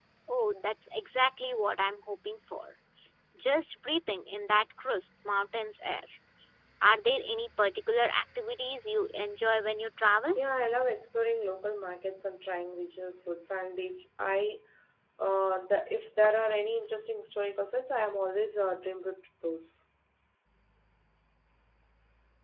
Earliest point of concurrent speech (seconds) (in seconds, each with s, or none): none